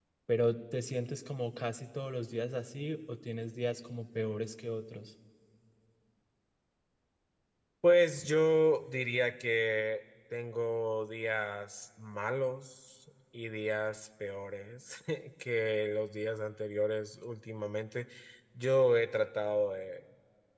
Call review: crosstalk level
none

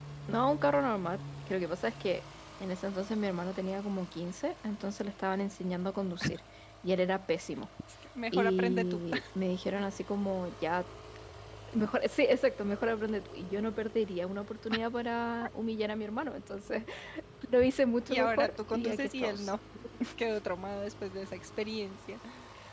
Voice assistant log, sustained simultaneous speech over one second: present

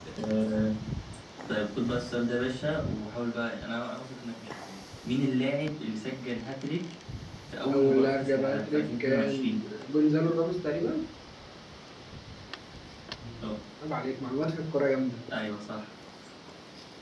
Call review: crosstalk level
present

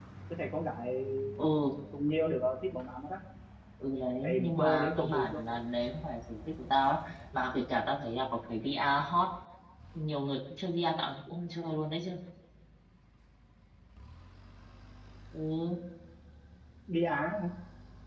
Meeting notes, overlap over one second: present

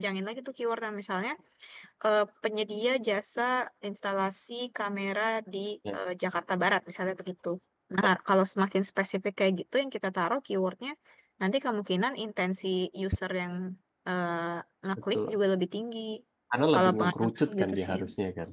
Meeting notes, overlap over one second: present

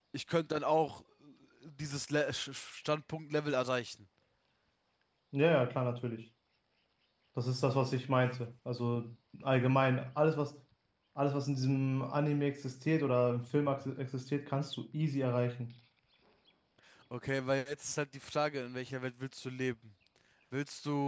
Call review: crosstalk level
none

